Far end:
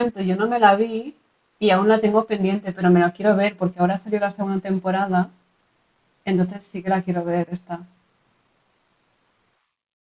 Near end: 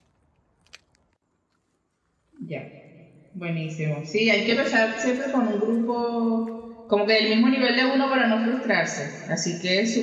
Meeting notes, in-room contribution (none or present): present